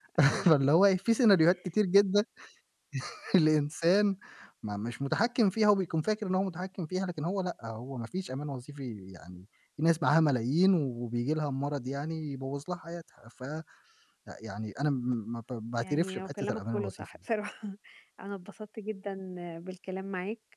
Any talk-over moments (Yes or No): Yes